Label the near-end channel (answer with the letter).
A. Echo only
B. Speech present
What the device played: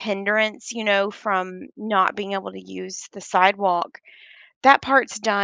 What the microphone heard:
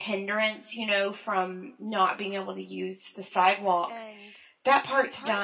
B